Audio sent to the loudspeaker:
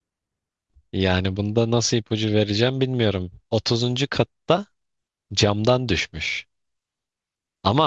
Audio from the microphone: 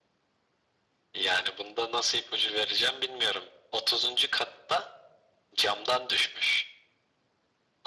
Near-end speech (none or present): none